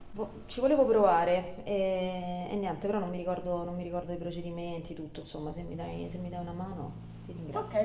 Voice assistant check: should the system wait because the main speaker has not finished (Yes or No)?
No